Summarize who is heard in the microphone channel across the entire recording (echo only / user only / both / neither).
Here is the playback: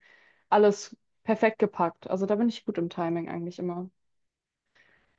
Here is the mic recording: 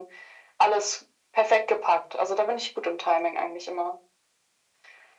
echo only